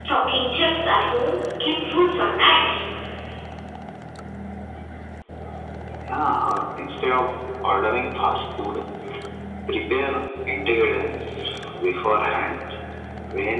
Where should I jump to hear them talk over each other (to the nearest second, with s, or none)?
none